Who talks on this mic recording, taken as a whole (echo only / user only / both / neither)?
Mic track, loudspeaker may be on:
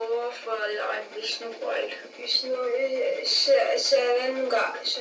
echo only